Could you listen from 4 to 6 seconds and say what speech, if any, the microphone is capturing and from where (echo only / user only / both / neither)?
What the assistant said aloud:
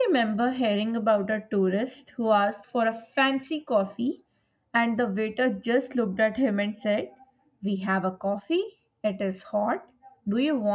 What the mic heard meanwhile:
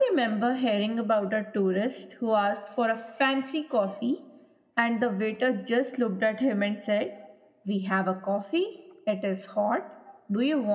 echo only